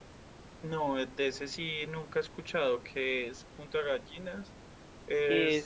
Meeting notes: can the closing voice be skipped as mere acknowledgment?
Yes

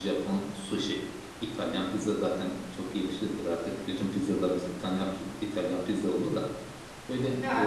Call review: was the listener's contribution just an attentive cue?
Yes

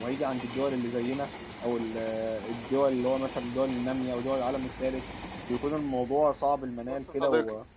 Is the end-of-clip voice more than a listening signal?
Yes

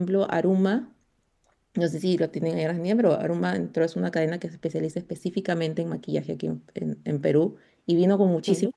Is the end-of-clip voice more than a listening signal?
No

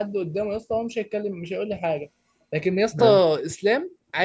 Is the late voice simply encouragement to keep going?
Yes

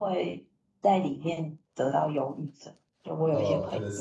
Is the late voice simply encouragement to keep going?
No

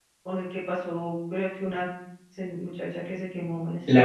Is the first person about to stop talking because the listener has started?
Yes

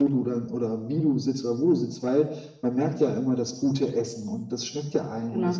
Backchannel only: Yes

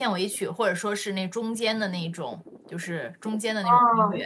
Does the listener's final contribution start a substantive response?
Yes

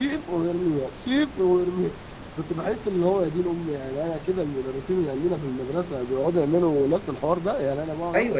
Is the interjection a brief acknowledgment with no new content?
No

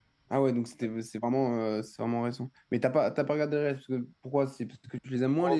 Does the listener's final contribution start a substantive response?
Yes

